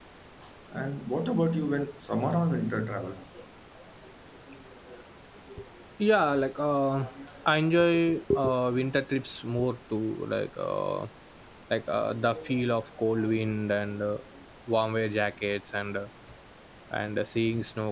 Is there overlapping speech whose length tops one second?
No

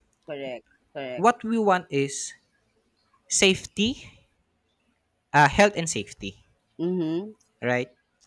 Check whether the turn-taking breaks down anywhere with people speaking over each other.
No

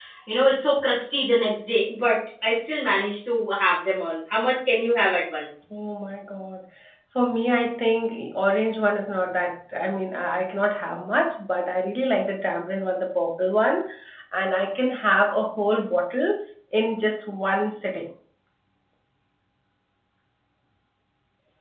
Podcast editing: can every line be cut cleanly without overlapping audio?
Yes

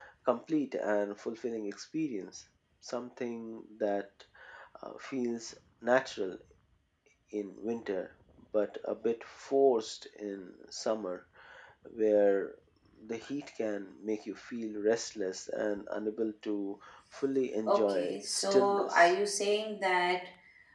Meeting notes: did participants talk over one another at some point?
Yes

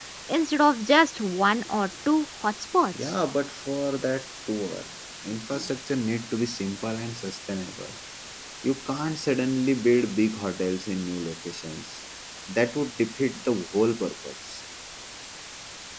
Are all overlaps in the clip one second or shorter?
Yes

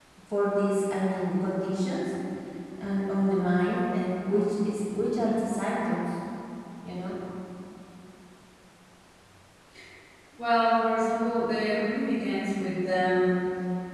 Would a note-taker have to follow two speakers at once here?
No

